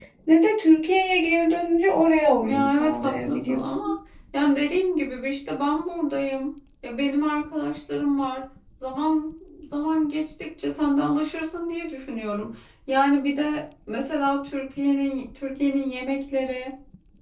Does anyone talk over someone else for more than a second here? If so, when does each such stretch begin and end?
2.4-3.9

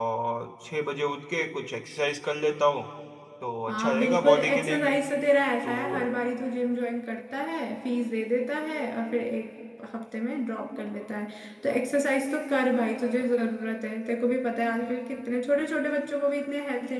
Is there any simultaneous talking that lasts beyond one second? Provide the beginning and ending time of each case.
3.7-5.0

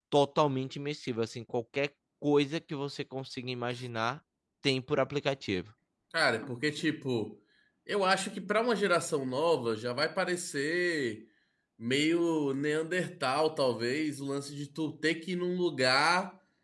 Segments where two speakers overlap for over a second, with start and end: none

